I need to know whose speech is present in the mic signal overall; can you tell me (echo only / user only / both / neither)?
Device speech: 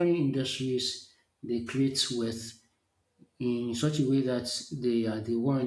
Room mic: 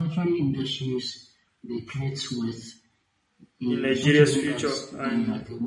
both